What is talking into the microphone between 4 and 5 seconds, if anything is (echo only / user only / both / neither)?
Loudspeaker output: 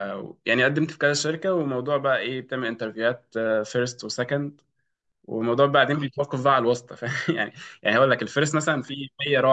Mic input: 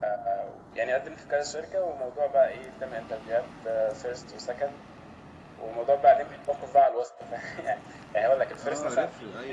echo only